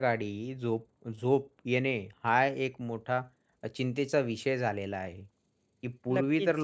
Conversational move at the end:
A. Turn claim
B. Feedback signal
B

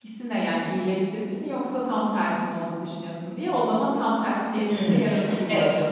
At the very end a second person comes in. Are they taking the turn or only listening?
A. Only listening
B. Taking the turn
B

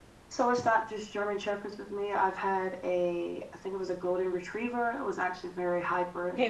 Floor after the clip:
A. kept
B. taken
B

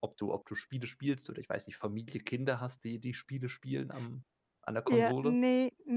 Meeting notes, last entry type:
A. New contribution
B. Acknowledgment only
A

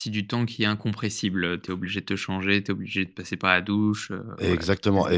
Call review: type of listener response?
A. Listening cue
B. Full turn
B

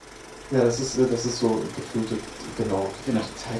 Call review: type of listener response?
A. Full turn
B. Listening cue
A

